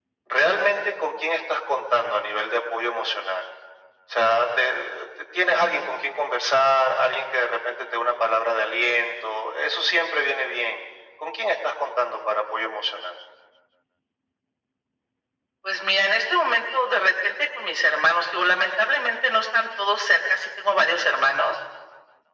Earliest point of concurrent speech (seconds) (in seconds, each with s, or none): none